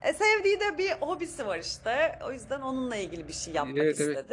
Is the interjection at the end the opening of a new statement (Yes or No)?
Yes